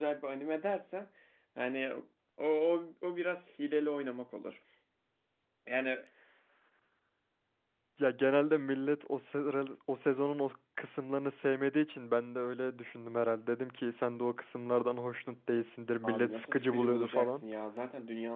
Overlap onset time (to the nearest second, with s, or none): 16 s